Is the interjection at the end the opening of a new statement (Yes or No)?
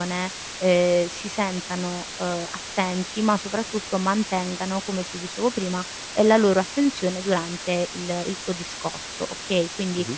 No